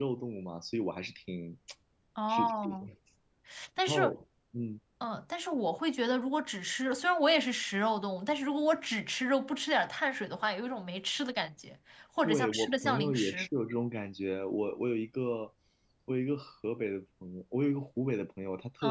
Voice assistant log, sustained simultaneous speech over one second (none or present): present